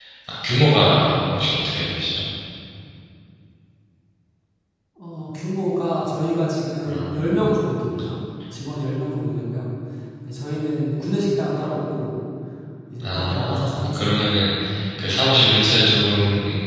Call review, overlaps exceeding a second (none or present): present